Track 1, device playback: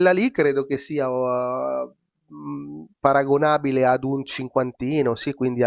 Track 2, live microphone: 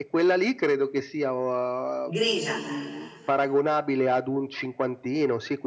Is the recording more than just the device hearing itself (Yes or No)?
Yes